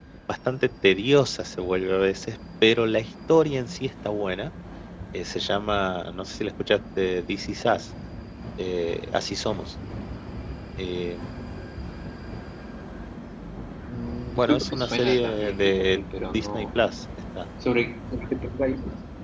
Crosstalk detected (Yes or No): Yes